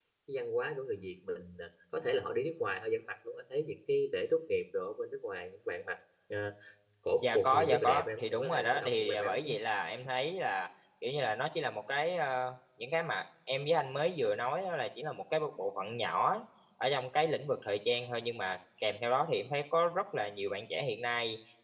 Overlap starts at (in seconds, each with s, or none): 7.2 s